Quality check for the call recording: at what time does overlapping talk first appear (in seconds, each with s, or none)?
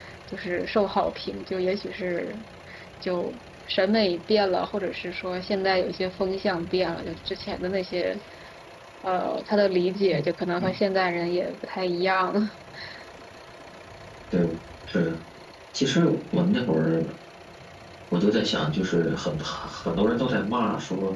none